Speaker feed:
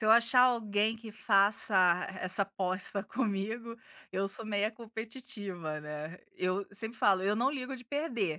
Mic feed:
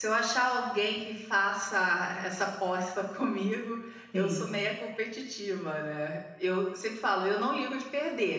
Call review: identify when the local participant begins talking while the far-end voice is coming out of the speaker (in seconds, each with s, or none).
4.1 s